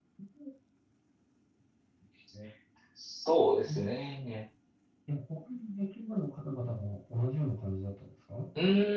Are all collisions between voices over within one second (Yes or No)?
Yes